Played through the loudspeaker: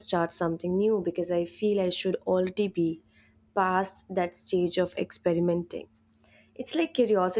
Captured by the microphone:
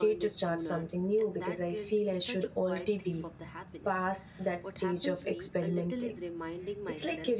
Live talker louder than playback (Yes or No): No